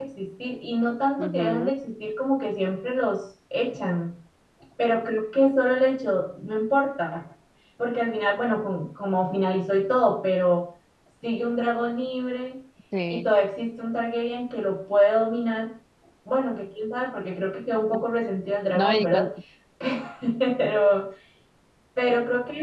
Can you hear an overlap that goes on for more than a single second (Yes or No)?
No